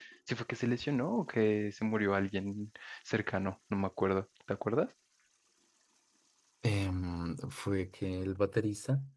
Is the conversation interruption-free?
Yes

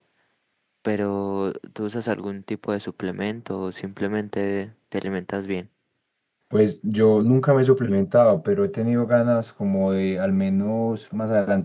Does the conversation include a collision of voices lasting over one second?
No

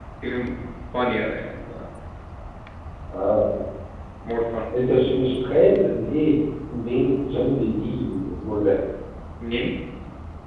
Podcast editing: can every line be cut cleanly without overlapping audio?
Yes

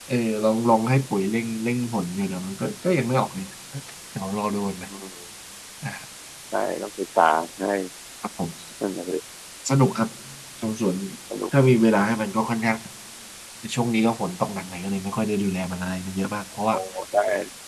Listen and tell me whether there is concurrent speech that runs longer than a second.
No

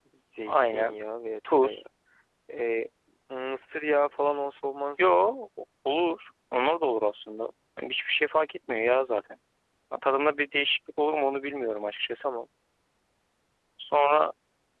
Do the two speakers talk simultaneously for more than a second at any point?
No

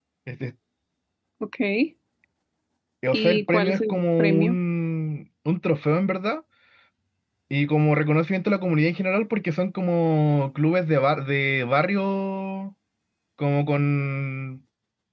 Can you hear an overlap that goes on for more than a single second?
Yes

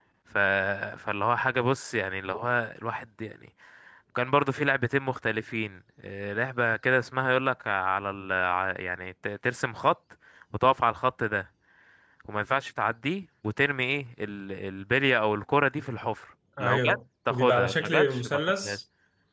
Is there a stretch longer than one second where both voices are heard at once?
Yes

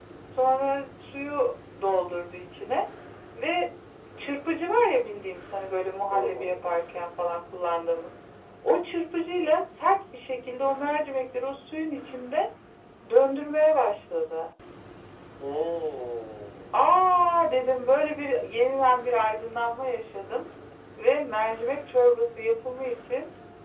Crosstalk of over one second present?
No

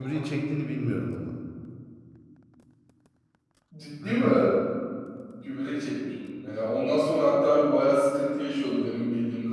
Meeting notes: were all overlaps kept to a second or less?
Yes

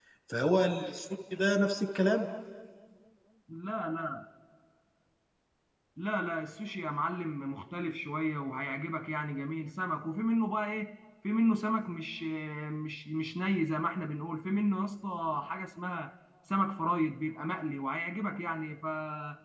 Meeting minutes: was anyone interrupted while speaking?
No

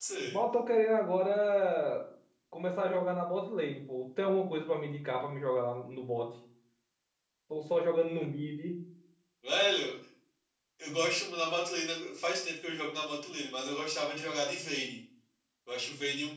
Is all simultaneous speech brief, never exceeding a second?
Yes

